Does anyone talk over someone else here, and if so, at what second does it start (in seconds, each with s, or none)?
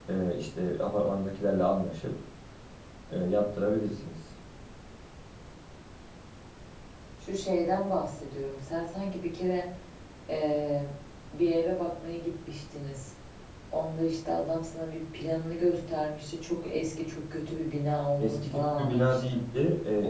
18.2 s